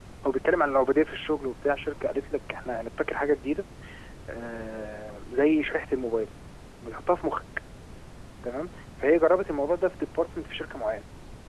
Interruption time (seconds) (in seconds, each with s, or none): none